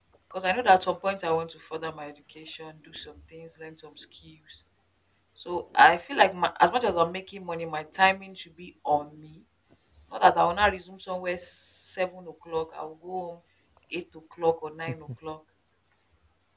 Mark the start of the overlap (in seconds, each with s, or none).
none